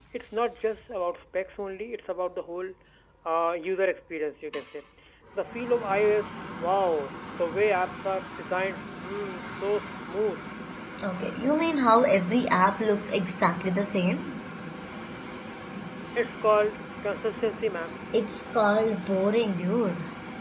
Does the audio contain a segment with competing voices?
No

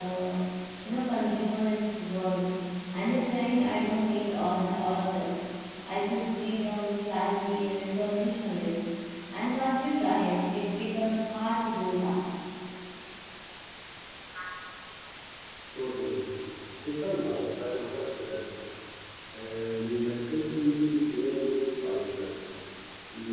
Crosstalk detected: No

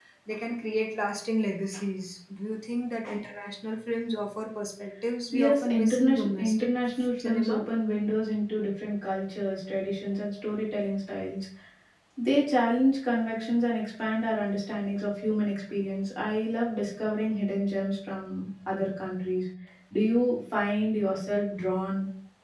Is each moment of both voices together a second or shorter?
No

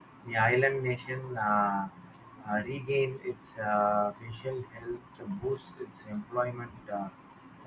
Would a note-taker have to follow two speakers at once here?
No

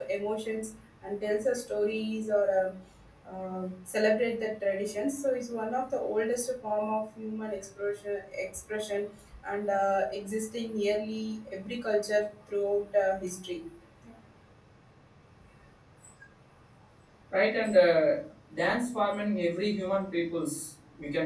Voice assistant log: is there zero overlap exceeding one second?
Yes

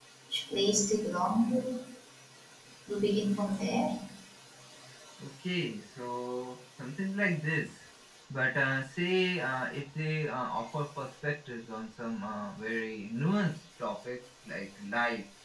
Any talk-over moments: No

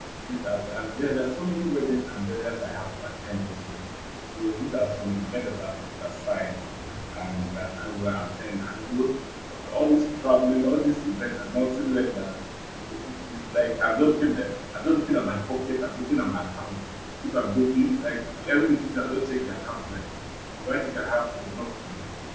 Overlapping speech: No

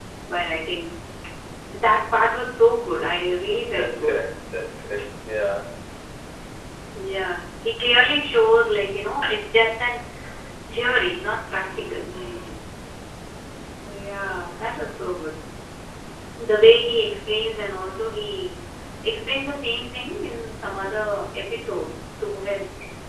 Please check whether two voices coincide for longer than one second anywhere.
No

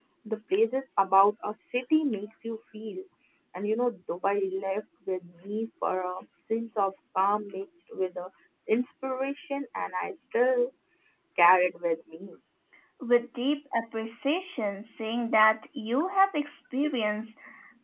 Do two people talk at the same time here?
No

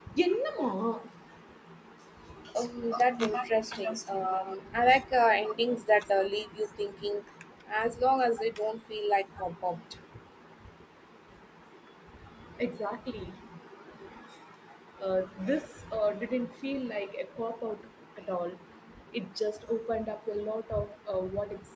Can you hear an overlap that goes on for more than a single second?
Yes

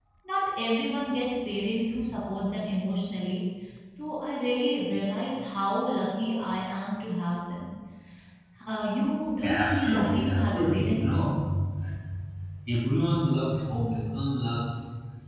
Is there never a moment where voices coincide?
No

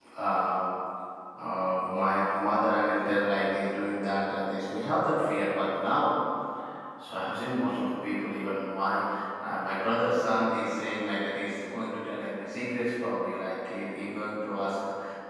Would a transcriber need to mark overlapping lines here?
No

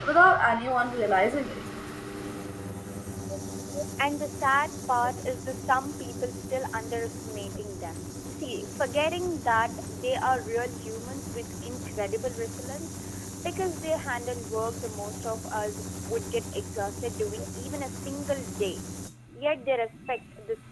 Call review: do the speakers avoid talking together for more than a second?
Yes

